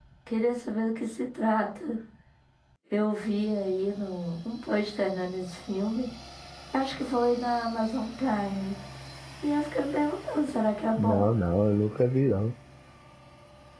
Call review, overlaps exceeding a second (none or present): none